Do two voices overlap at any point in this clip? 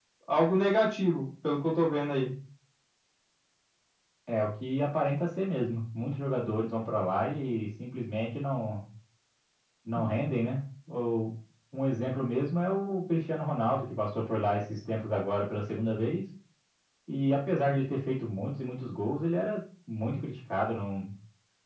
No

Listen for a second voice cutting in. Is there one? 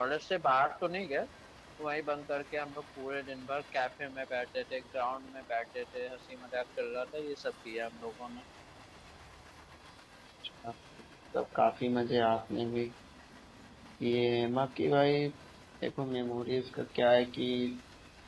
No

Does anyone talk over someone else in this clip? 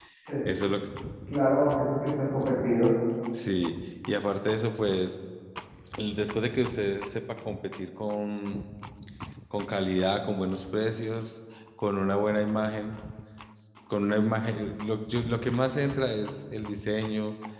No

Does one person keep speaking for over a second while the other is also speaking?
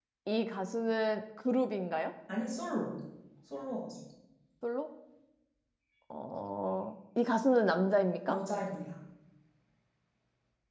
No

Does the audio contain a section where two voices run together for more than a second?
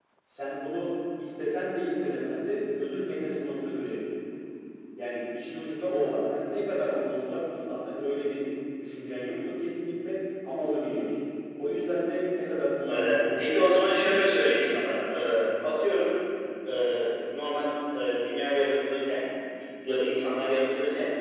Yes, from 12.8 s

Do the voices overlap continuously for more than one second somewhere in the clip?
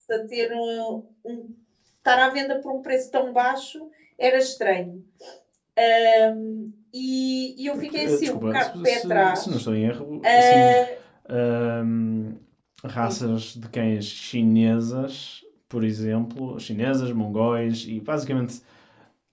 Yes, from 8.0 s

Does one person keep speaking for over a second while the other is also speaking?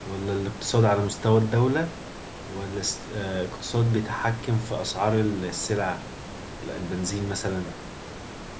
No

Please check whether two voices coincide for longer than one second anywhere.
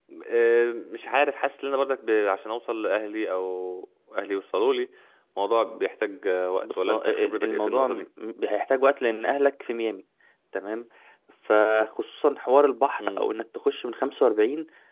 Yes, from 6.6 s

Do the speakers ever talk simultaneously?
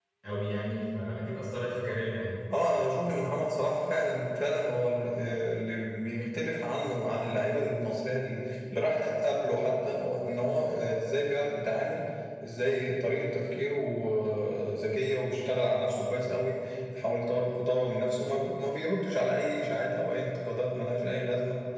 No

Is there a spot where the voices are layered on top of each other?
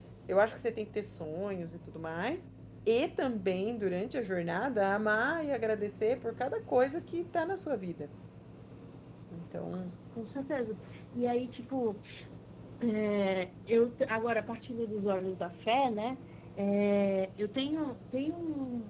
No

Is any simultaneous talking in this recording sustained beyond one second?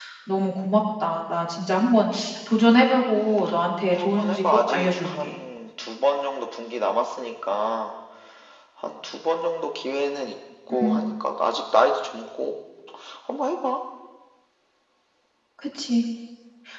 Yes, from 3.9 s

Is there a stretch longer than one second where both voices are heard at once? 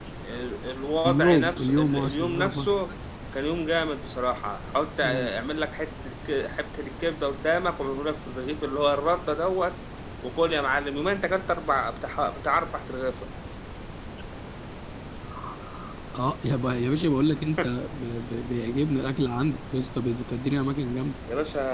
Yes, from 1.0 s

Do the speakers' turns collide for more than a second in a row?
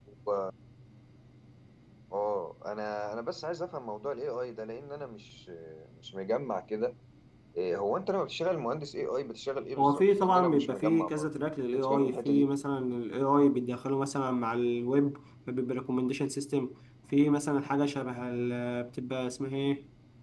Yes, from 9.8 s

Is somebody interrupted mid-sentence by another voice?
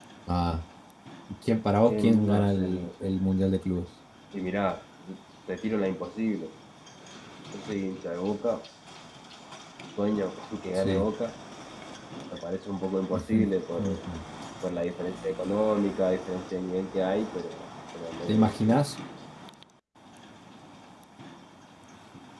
Yes, from 1.9 s

